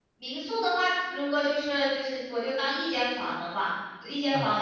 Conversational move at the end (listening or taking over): listening